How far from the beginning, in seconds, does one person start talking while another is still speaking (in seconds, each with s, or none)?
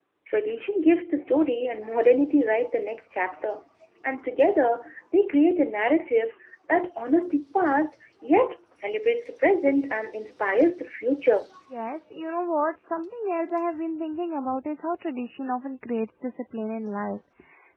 none